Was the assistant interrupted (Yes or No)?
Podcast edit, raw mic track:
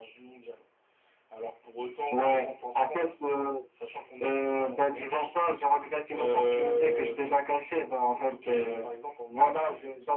No